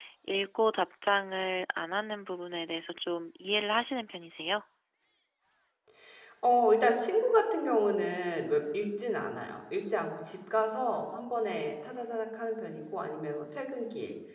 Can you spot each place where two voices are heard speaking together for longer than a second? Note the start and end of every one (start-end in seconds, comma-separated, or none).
none